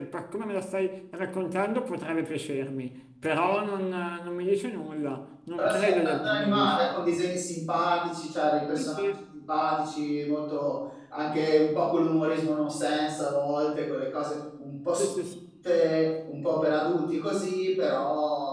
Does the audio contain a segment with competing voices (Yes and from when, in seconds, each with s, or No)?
Yes, from 5.6 s